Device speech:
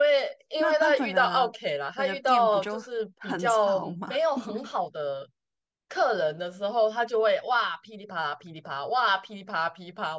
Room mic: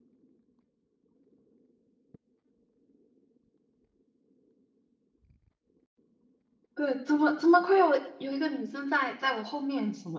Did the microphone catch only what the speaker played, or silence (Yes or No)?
No